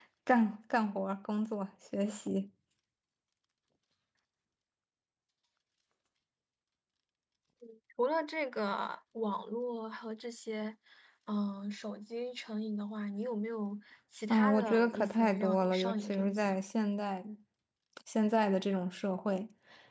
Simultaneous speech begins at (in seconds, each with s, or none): 14.3 s